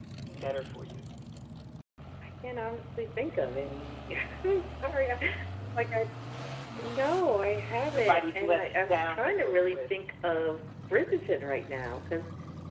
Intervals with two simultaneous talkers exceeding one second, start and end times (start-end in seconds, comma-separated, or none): 7.9-9.9